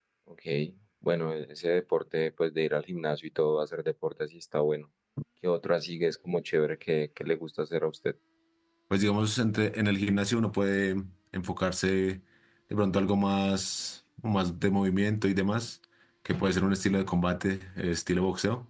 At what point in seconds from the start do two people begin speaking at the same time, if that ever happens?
none

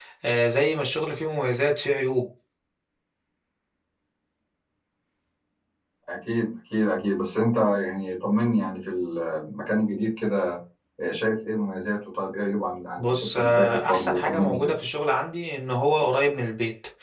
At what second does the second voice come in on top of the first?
13.0 s

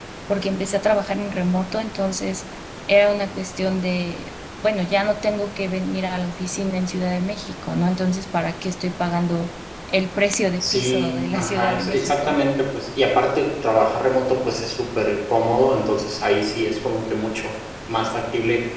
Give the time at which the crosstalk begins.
10.6 s

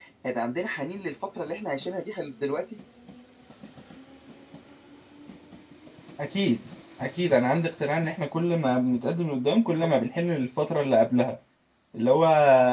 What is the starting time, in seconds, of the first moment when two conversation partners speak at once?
none

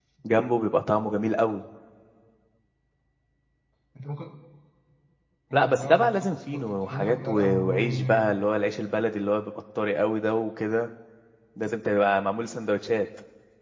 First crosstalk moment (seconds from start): 5.5 s

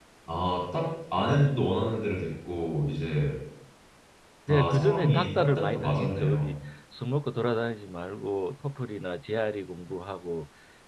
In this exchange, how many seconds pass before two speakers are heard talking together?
4.5 s

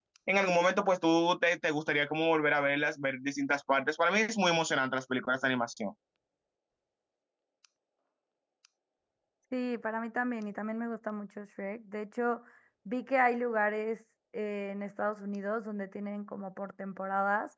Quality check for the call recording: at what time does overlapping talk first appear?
none

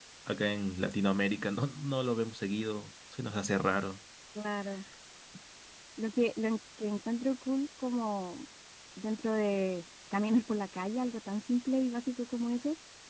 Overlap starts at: none

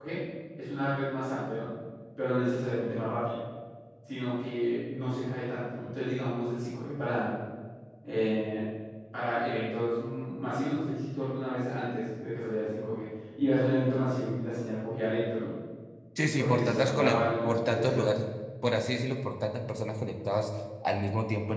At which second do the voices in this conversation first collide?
16.4 s

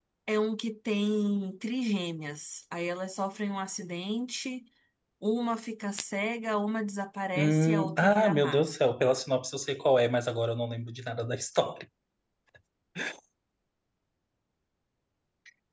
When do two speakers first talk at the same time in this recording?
7.3 s

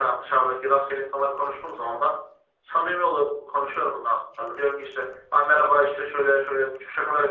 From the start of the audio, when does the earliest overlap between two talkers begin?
none

